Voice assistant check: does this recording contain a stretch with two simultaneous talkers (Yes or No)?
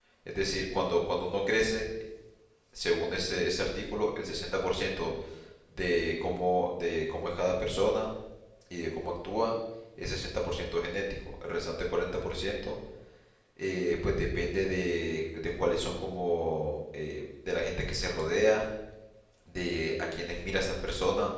No